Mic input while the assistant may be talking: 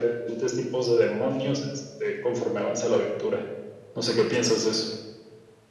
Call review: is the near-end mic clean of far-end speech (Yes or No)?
No